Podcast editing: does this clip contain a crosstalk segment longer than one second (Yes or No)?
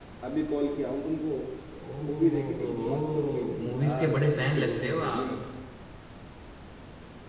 Yes